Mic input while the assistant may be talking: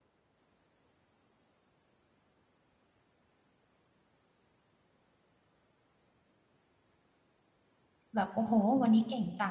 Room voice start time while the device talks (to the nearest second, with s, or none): 8 s